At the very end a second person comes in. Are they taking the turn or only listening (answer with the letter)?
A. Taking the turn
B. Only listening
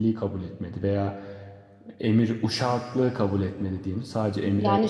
A